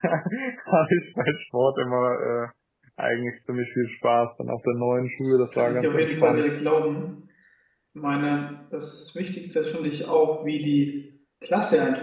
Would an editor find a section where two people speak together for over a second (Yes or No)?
Yes